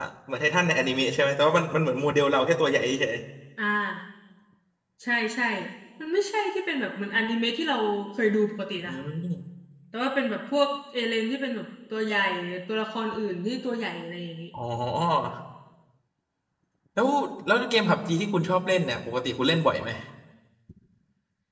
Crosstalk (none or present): none